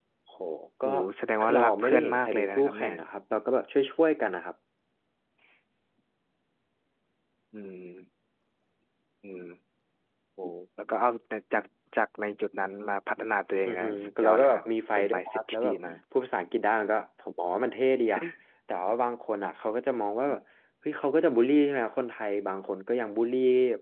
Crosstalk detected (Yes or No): Yes